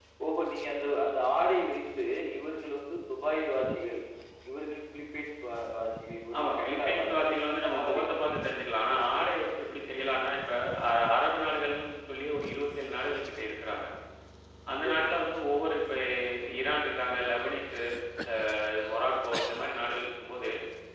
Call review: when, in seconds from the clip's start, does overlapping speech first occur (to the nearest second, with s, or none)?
6 s